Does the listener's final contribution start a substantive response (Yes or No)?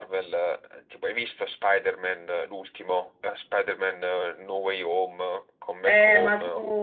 Yes